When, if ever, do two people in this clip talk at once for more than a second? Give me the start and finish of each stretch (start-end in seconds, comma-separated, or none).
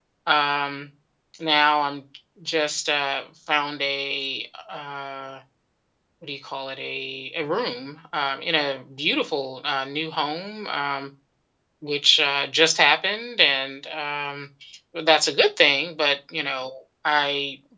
none